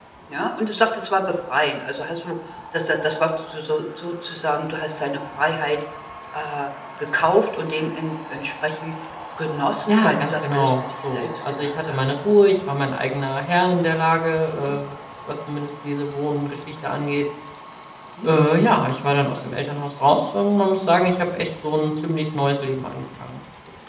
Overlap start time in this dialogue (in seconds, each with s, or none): 9.9 s